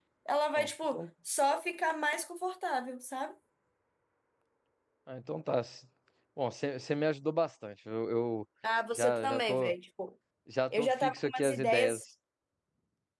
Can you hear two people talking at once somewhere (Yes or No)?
Yes